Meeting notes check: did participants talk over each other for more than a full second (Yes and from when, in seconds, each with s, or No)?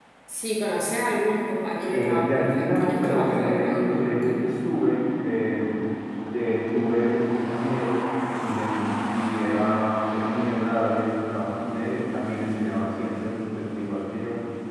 Yes, from 1.9 s